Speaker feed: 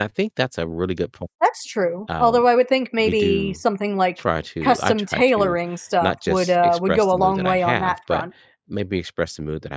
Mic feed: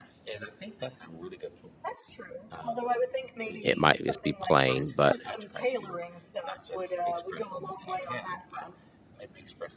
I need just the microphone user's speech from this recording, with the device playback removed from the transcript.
it might just be plain, but

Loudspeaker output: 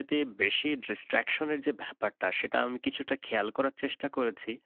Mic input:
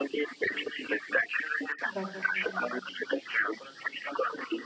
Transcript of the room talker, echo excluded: দরকার হয়, হ্যাঁ।

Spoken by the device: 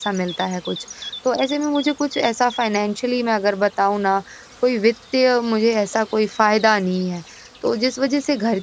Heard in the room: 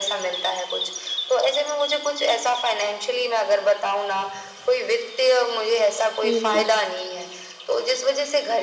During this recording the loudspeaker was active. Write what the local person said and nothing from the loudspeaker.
हुँ। हुँ, हुँ।

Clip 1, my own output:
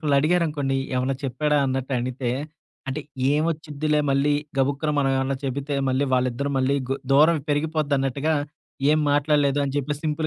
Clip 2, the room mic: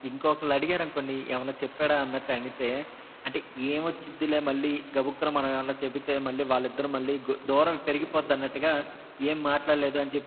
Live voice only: none

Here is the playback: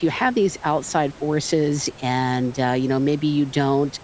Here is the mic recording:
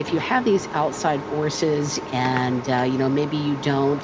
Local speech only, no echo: none

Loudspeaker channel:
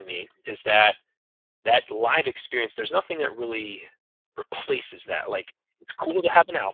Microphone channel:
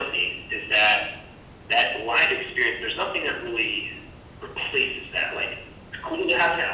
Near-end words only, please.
none

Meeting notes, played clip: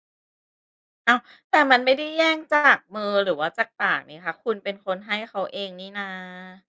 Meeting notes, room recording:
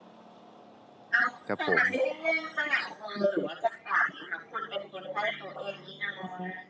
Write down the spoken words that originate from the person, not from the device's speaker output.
ครับผม

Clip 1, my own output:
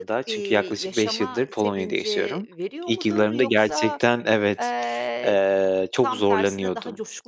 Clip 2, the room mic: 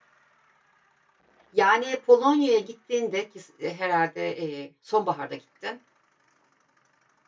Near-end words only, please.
Yani Polonya'ya gittiğinde ki s e, herhâlde, eee, sonbaharda gittin.

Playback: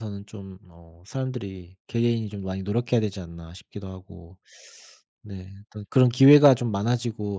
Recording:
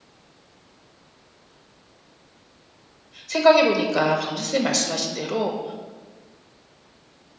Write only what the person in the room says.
생각해 보니까 방금 선생님 말씀하신 대로

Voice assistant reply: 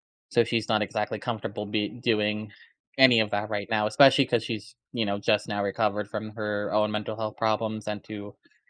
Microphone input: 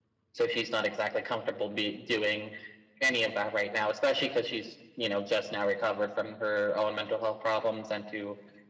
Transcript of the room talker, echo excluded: none

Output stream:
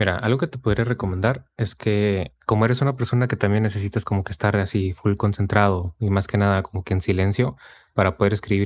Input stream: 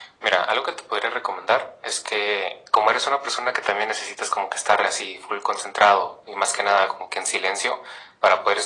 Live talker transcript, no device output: none

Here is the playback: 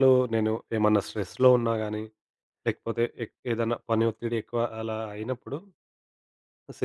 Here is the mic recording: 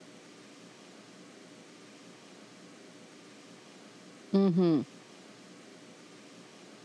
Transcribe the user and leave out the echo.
హుహు.

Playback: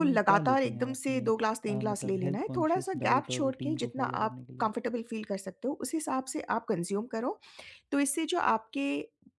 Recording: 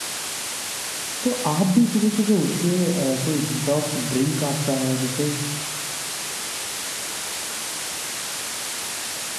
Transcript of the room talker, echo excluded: तो आप भी सुबह सुबह उठ के अ, कोई डिटॉक्स ड्रिंक आपका है जैसे

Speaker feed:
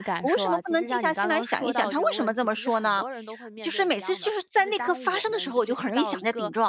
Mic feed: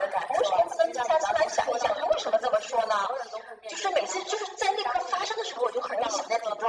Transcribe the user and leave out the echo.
none

